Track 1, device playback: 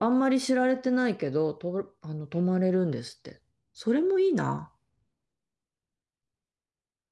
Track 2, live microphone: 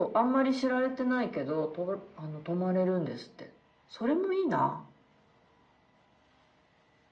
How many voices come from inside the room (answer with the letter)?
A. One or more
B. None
B